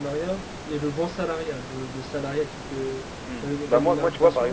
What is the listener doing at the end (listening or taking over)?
taking over